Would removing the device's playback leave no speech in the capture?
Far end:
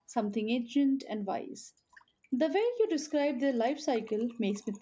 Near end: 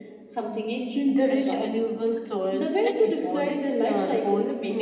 No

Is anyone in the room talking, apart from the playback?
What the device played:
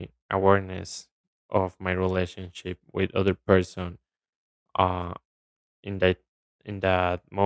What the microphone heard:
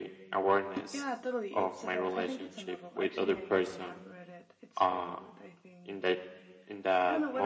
Yes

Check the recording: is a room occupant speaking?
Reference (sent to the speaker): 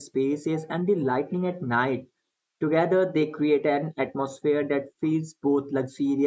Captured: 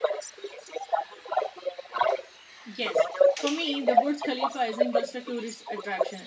Yes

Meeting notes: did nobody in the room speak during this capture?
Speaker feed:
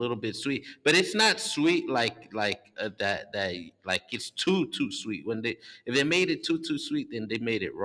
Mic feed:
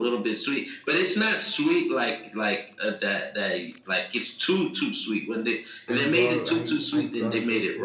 No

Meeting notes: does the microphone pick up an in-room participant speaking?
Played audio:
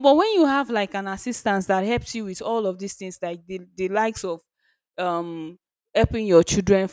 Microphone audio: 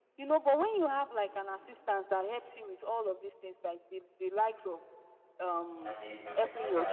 Yes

